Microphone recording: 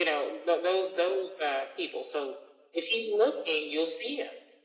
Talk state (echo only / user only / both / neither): echo only